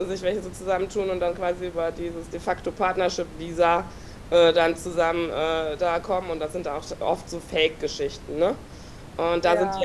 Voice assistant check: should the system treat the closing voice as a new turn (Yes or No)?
No